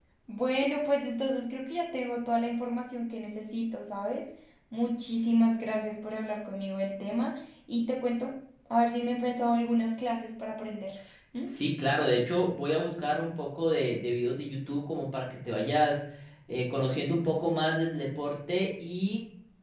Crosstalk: none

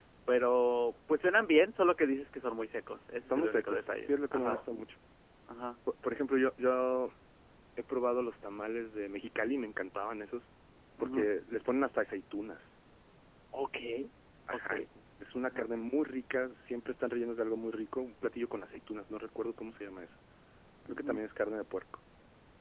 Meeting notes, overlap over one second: present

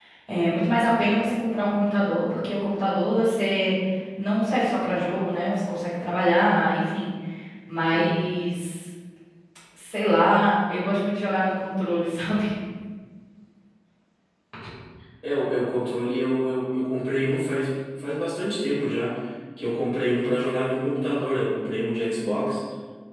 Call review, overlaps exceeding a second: none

